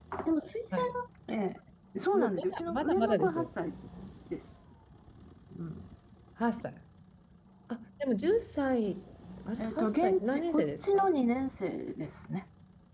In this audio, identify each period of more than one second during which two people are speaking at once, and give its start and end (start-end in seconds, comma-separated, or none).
2.1-3.5, 9.6-11.1